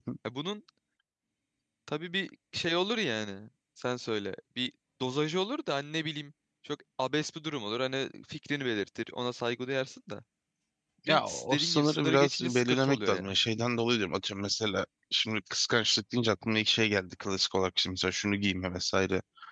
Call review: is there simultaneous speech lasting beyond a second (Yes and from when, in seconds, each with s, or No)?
Yes, from 11.1 s